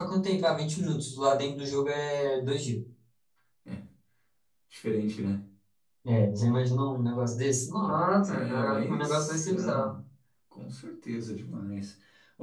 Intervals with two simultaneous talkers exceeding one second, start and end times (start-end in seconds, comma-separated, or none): 8.2-9.9